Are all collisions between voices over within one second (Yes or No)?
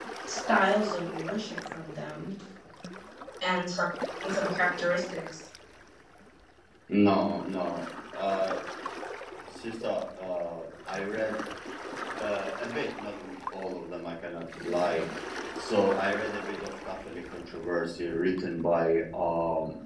Yes